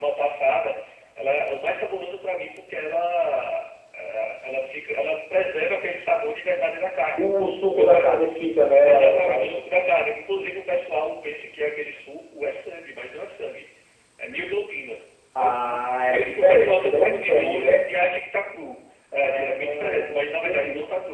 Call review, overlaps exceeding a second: present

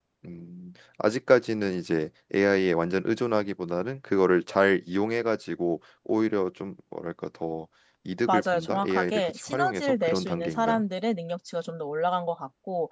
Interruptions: present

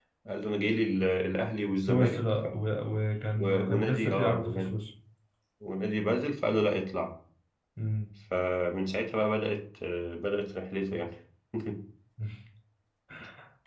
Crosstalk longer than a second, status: present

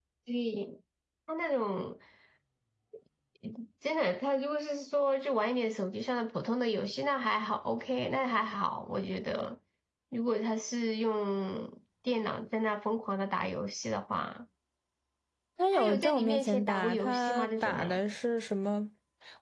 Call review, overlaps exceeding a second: present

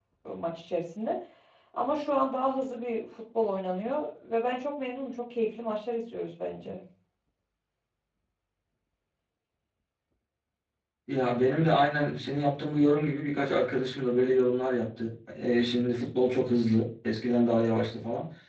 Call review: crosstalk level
none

